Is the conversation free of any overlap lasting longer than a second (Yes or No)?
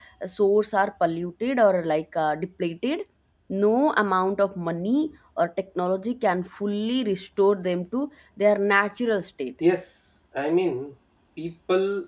Yes